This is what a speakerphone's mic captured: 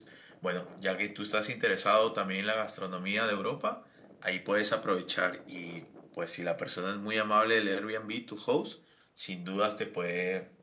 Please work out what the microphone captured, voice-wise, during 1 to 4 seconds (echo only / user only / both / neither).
echo only